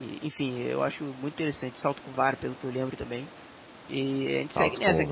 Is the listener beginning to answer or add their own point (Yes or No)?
Yes